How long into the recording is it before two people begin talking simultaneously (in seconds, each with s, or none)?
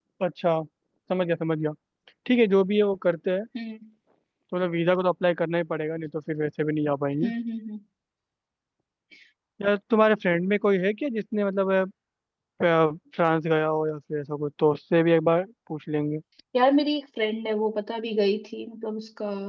none